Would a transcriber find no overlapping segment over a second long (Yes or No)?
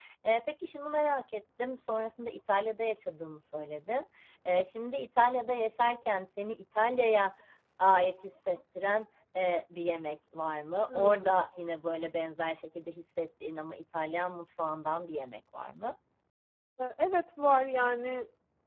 Yes